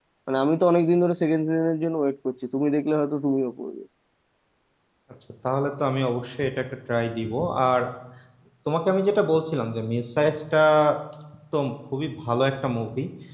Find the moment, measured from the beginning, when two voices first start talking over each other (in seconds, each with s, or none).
none